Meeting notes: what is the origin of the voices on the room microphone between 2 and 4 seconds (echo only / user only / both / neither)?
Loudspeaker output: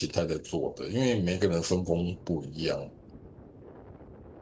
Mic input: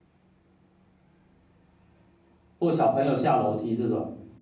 user only